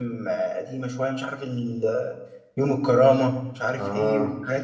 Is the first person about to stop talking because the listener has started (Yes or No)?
No